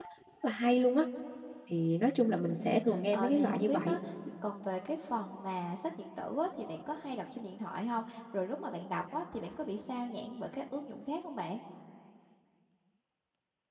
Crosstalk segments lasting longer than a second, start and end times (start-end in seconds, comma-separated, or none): 2.6-4.0